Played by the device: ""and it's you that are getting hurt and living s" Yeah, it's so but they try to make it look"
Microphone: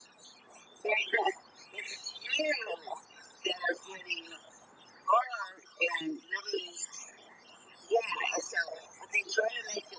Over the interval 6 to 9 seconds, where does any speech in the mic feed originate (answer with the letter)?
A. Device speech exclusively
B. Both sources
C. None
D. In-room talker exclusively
A